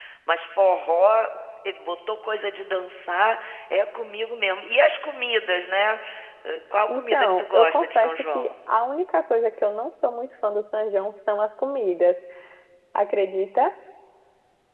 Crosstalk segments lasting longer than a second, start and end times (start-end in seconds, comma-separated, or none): 6.9-8.5